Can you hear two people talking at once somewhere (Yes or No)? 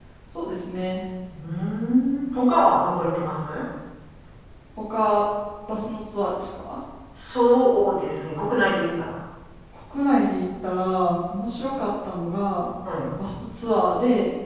No